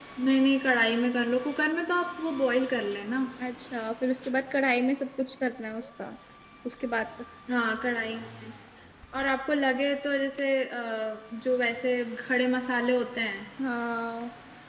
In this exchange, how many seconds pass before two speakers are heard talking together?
none

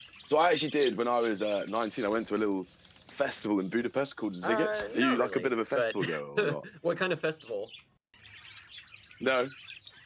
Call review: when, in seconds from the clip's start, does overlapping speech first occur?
4.4 s

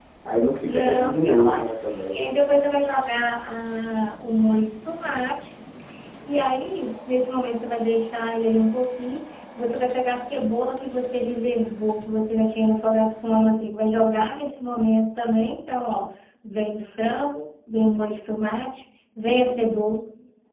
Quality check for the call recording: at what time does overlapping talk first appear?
0.7 s

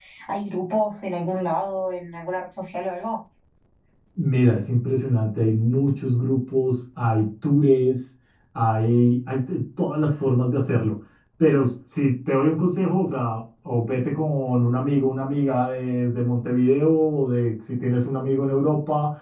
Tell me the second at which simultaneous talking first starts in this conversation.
none

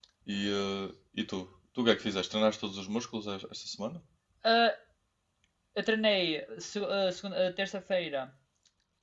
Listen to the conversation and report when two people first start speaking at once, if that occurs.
none

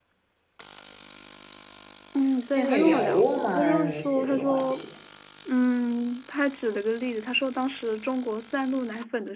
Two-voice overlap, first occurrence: 2.5 s

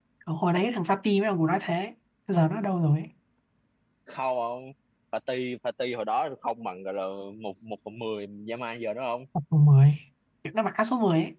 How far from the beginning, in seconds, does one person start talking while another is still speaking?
none

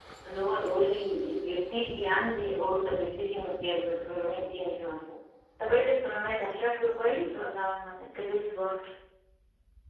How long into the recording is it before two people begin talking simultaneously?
none

